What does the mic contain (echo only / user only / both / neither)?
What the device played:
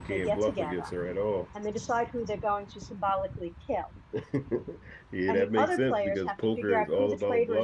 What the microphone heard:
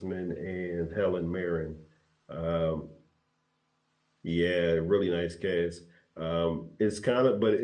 user only